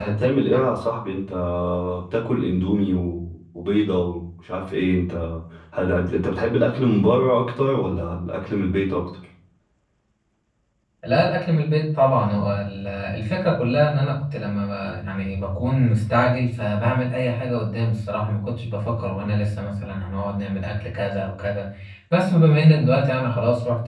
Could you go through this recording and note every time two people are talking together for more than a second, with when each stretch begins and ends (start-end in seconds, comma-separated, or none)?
none